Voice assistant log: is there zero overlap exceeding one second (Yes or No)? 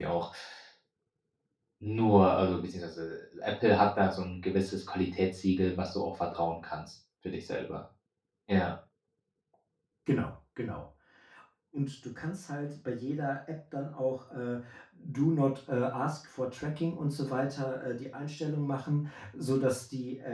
Yes